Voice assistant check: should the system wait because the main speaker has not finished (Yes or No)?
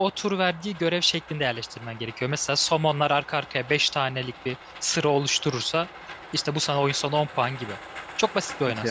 No